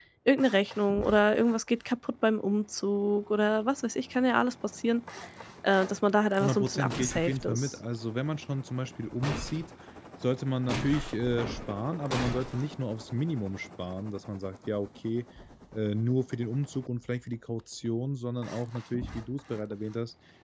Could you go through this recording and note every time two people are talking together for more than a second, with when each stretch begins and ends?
6.4-7.7

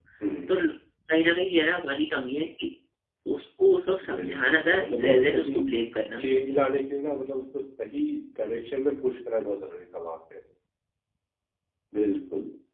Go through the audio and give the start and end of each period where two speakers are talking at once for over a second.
4.1-5.6

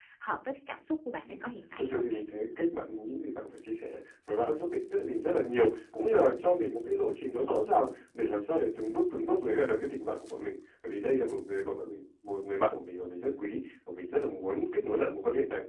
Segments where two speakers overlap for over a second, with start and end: none

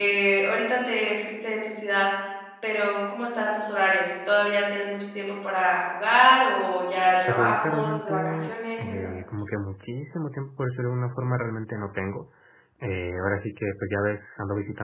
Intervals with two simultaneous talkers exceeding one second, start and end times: 7.3-9.1

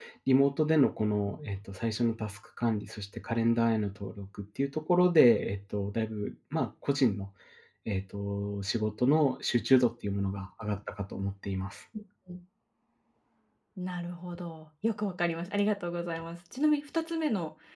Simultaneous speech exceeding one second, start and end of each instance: none

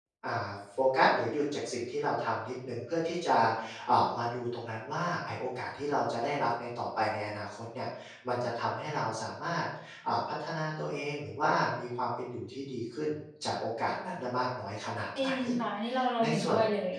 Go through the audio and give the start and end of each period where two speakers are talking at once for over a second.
none

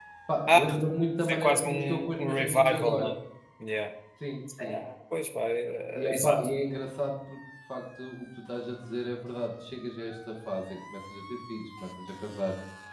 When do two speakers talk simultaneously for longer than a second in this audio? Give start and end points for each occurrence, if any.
1.2-3.1

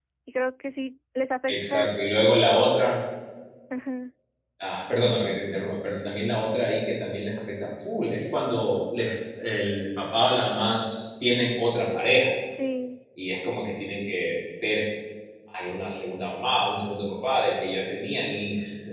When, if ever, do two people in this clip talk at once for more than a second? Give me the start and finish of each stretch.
none

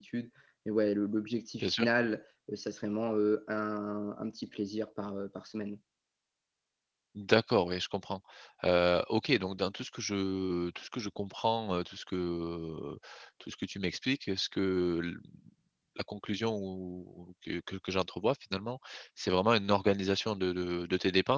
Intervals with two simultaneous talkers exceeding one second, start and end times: none

